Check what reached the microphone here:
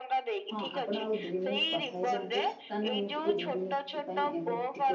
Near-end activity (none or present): present